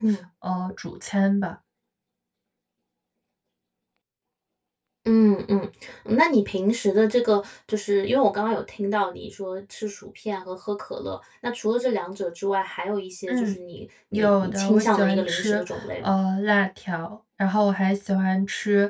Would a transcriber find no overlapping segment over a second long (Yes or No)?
No